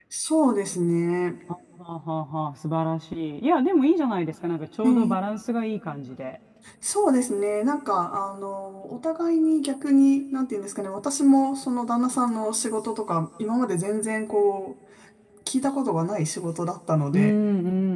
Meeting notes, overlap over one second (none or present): none